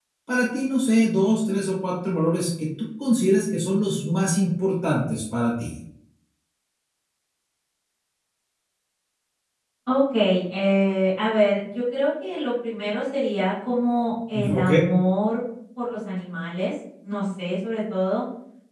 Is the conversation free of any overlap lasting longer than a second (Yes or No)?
Yes